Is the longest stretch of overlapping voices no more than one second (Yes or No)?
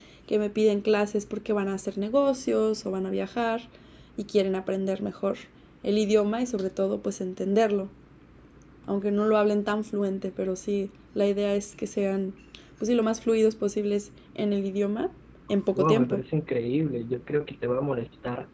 Yes